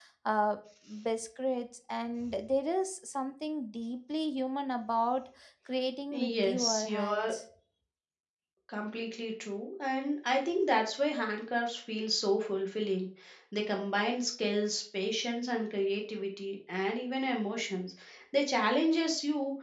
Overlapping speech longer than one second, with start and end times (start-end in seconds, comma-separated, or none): 6.1-7.3